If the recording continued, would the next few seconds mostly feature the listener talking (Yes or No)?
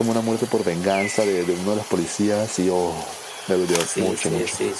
Yes